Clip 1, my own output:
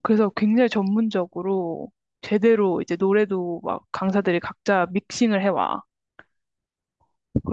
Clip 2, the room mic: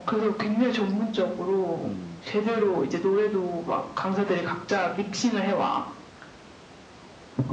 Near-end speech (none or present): present